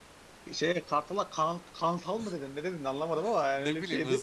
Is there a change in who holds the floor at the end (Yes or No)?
Yes